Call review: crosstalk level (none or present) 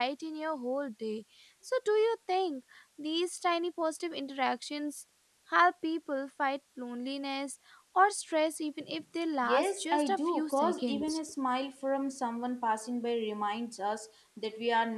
present